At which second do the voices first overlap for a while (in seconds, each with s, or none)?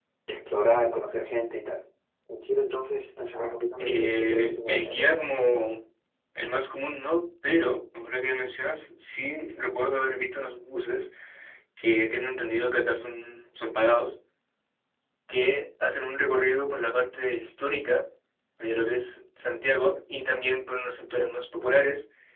3.8 s